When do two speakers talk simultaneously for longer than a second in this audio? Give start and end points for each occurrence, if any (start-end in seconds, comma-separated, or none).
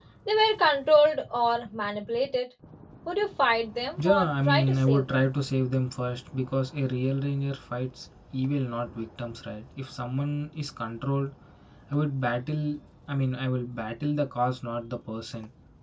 4.0-5.2